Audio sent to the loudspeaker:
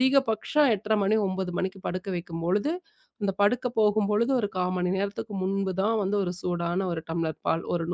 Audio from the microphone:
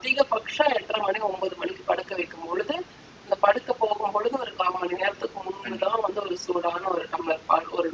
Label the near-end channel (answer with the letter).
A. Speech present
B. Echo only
A